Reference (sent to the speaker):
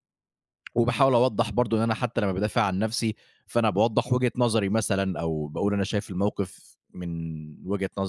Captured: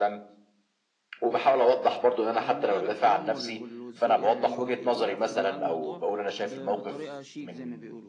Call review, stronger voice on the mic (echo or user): echo